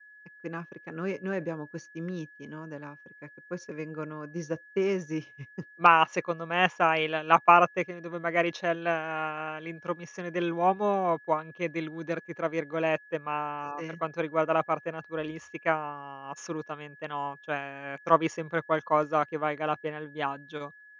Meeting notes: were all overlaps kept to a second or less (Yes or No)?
Yes